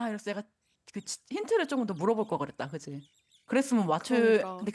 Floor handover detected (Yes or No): Yes